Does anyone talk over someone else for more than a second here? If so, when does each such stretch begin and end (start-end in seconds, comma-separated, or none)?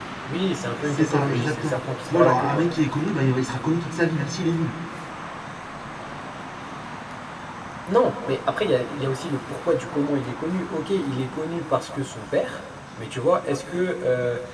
0.9-2.6